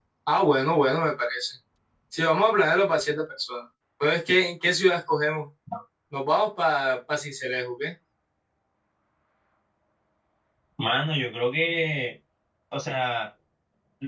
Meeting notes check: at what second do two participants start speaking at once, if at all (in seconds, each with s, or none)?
none